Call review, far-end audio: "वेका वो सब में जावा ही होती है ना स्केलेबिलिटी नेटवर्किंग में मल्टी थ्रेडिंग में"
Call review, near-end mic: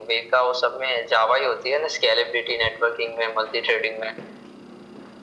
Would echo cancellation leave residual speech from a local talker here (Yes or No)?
No